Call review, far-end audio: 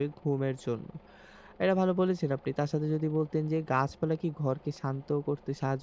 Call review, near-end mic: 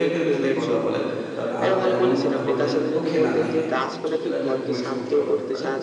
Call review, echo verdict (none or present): present